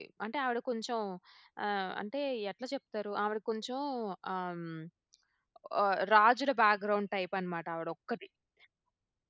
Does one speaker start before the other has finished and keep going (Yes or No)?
No